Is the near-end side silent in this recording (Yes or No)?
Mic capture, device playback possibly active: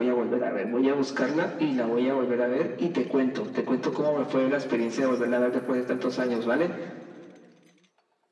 Yes